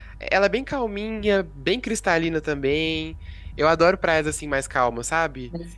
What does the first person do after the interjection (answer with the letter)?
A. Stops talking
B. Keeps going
B